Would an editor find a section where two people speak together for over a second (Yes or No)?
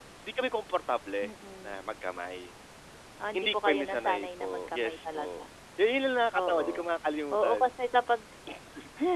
Yes